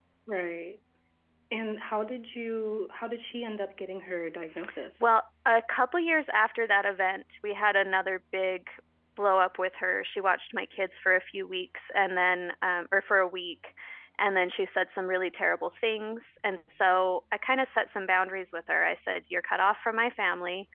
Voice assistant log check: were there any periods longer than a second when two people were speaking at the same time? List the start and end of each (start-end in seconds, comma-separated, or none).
none